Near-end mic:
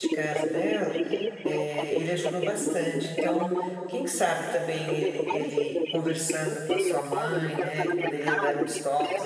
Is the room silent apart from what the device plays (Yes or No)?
No